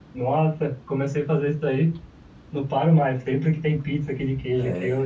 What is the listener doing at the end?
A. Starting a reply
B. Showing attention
B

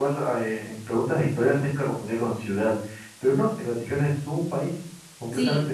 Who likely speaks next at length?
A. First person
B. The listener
B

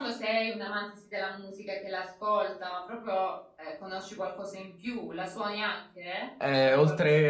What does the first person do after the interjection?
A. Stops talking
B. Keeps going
A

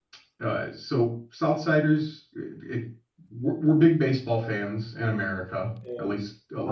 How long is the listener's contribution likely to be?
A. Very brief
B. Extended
B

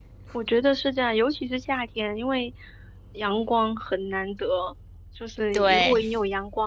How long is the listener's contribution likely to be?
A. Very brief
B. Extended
A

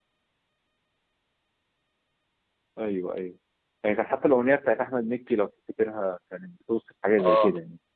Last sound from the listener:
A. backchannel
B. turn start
B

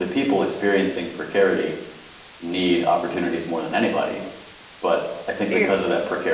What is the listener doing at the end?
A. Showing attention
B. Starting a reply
A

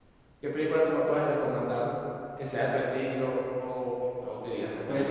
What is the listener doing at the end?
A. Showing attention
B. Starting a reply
B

